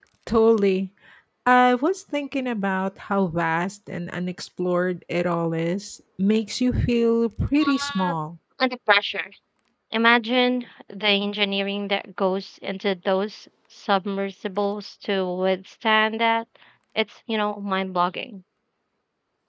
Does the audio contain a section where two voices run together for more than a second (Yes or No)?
No